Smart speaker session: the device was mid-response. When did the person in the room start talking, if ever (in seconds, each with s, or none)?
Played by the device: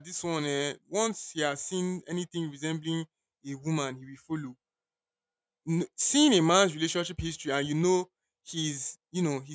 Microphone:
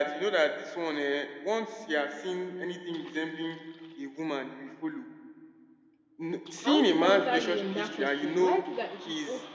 6.6 s